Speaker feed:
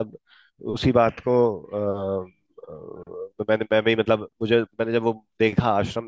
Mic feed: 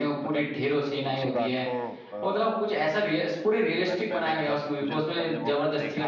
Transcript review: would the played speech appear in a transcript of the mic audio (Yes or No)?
Yes